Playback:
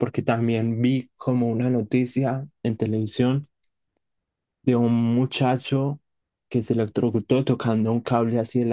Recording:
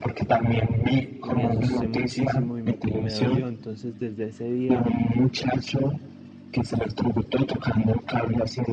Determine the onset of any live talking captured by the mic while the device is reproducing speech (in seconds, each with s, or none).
1.2 s